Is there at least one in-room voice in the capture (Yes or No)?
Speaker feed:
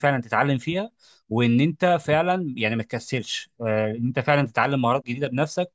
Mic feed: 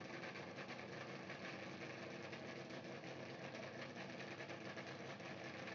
No